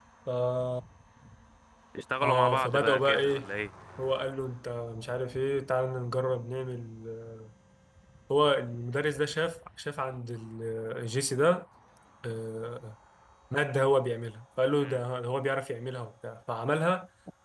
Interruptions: present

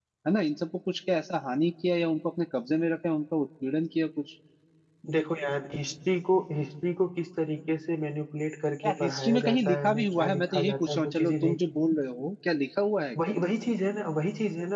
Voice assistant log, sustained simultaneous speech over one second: present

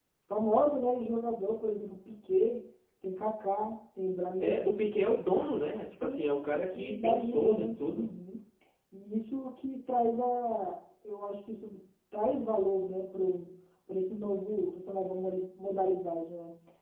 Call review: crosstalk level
present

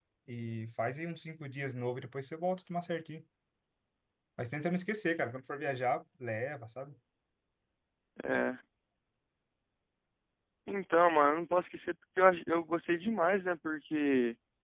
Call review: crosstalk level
none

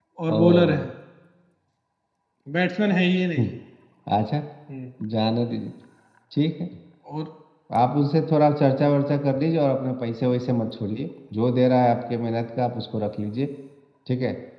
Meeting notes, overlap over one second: none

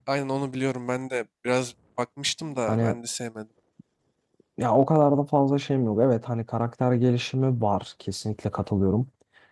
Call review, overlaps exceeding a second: none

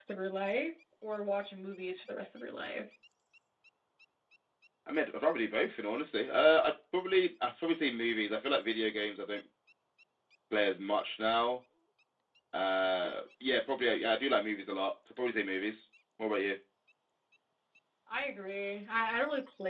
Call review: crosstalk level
none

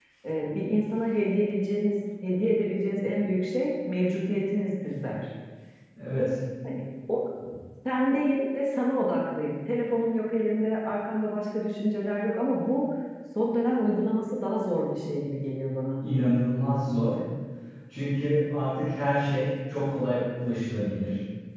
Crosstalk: none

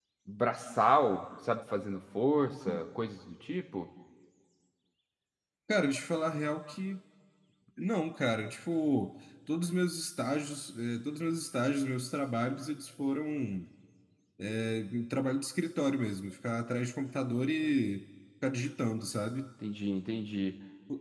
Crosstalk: none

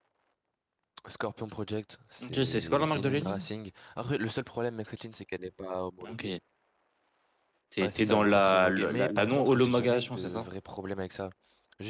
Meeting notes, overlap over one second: present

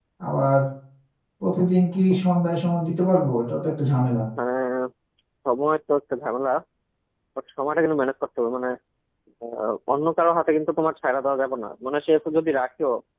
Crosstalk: none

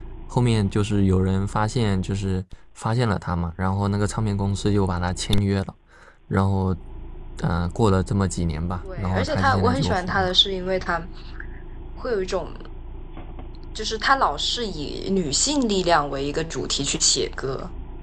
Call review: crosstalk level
present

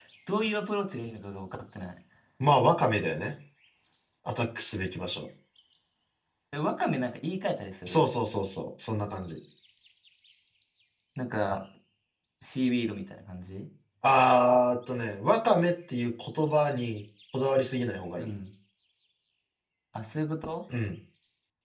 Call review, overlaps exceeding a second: none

